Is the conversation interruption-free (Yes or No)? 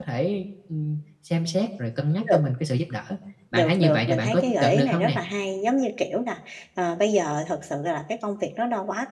No